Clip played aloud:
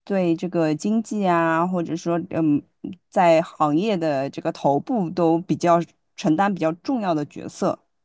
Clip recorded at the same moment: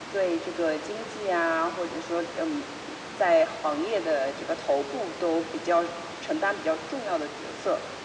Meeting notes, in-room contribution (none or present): none